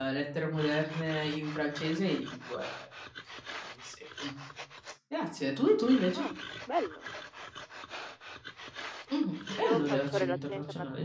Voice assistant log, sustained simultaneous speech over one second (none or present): present